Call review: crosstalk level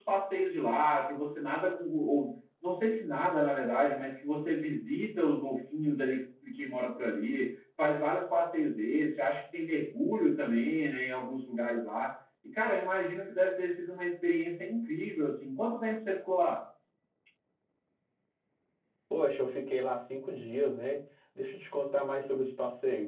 none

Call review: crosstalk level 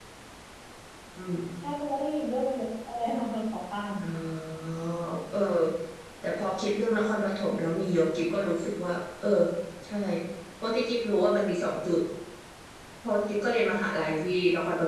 none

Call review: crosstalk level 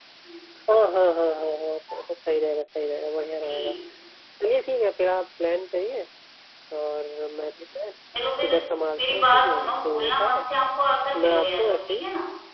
present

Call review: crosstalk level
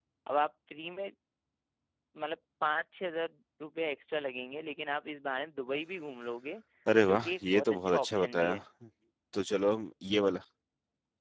present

